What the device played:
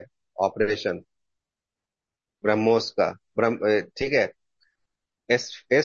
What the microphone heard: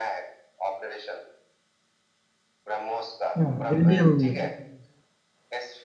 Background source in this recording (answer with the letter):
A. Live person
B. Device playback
B